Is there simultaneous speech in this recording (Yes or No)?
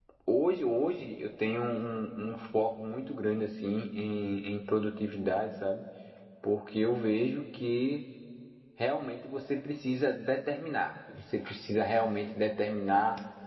No